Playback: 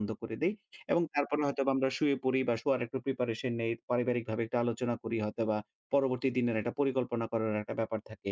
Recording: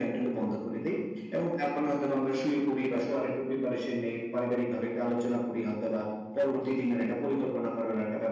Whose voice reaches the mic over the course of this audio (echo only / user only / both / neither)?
echo only